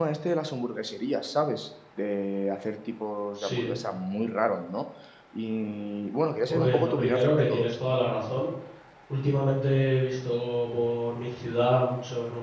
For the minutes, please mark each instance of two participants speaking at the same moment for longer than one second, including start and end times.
6.5-7.7

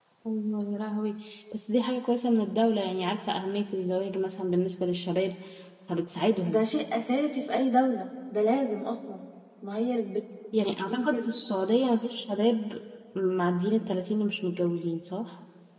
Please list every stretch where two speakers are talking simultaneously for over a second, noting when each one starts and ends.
none

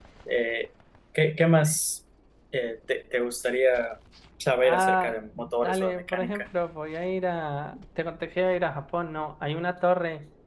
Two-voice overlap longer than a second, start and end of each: 4.7-6.4

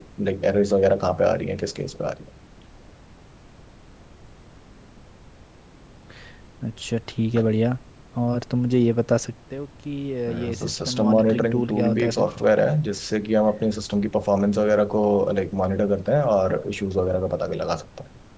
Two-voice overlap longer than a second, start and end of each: 10.3-12.2

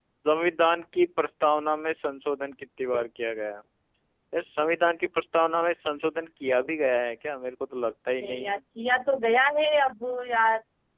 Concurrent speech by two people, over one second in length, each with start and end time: none

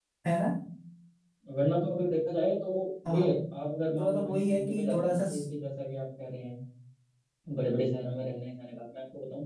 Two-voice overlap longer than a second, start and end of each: 4.0-5.2

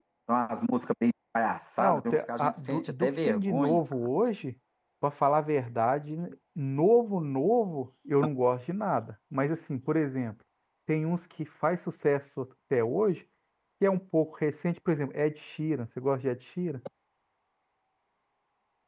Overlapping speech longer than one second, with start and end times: 1.8-3.8

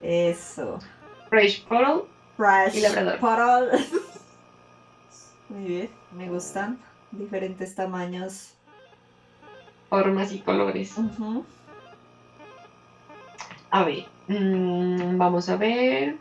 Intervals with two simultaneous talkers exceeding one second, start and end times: none

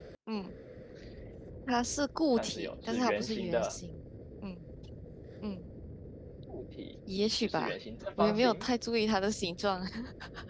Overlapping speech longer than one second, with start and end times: 2.3-3.8

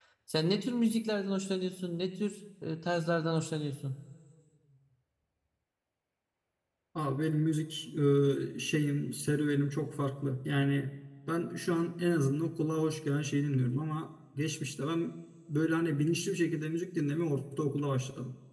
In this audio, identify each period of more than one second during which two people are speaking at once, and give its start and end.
none

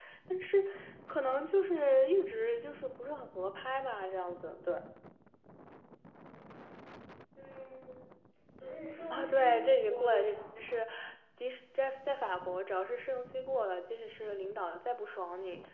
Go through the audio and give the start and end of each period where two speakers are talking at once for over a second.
9.1-10.3

